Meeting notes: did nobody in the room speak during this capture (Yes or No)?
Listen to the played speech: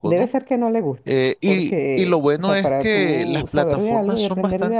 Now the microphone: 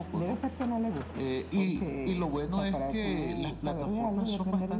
Yes